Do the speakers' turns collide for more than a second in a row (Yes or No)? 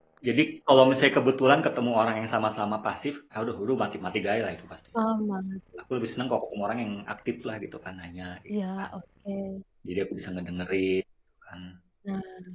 No